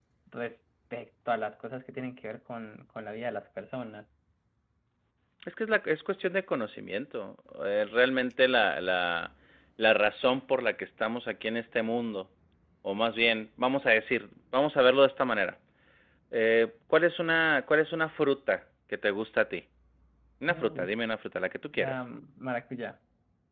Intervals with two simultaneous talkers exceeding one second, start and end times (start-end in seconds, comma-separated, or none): none